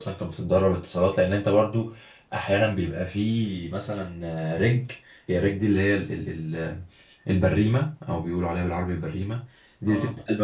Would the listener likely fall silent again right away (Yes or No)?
Yes